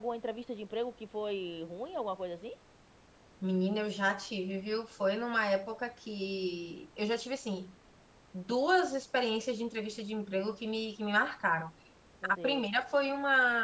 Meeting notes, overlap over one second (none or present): none